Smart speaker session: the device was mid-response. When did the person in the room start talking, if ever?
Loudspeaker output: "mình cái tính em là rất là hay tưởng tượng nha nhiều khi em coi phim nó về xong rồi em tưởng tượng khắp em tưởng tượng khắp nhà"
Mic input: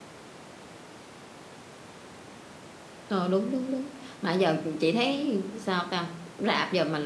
3.1 s

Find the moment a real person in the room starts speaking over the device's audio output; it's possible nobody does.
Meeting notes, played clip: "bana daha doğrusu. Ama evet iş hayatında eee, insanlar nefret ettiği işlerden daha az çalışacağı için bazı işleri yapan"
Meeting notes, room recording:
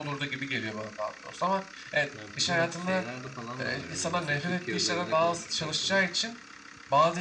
2.1 s

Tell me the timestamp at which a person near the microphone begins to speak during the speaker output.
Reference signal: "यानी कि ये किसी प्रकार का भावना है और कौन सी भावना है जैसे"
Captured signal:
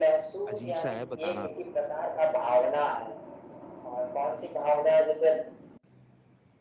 0.5 s

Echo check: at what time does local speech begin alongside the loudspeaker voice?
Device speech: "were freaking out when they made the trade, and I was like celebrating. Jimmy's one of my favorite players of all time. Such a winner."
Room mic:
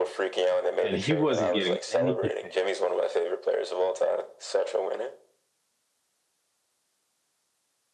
0.8 s

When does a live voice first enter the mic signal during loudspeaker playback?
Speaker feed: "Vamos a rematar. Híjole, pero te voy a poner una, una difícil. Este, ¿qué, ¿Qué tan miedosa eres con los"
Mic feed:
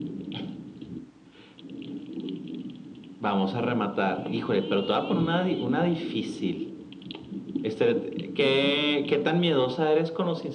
none

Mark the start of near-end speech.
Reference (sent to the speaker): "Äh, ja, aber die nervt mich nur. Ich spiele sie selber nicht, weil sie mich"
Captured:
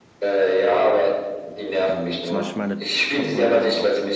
1.8 s

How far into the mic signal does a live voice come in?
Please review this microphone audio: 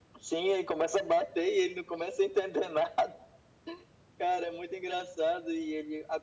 none

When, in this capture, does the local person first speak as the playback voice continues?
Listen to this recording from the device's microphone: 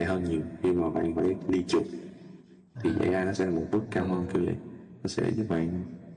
2.8 s

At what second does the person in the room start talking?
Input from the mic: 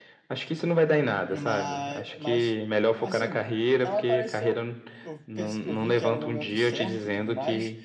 1.3 s

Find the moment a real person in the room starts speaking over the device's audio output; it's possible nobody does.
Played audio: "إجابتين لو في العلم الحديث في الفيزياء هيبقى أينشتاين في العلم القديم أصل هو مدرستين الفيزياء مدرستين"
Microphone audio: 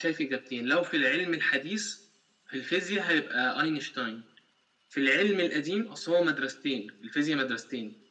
none

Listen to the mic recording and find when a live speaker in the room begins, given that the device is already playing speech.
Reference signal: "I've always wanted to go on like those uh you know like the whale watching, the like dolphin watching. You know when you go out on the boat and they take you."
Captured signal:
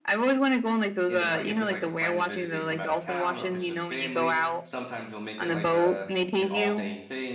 1.1 s

